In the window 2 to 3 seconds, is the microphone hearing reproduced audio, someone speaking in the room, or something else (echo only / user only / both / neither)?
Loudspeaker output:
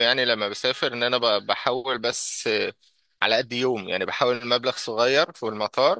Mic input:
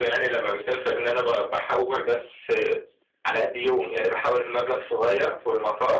echo only